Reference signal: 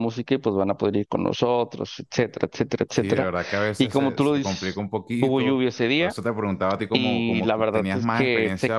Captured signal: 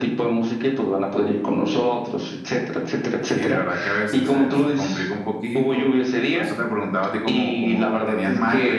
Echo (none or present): present